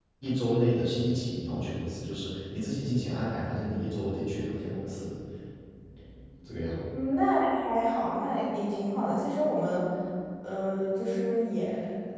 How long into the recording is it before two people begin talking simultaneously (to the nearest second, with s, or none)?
none